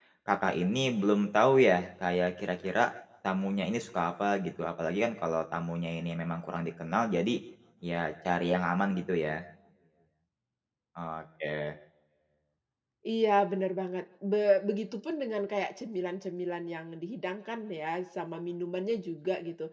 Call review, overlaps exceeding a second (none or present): none